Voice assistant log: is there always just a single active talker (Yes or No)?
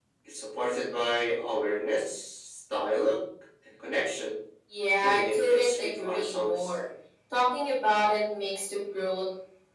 No